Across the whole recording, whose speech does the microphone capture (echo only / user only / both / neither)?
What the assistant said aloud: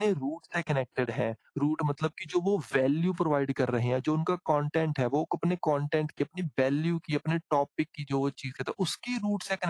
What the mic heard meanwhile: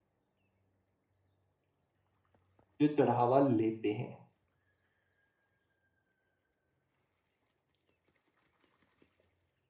user only